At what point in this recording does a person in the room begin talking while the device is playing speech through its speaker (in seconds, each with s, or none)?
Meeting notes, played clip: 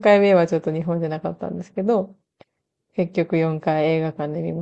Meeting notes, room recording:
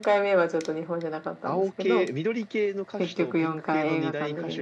1.4 s